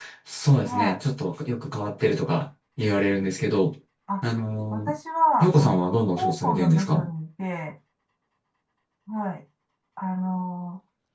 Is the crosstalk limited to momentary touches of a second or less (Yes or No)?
No